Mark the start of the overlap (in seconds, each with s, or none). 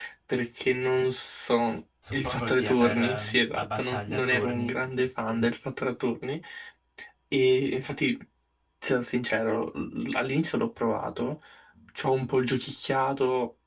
2.0 s